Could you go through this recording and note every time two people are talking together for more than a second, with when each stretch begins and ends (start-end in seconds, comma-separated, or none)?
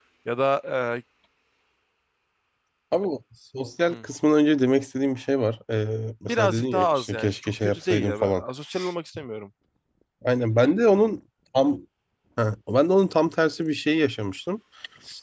6.2-8.4